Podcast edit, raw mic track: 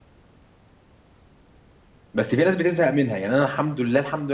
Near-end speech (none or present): present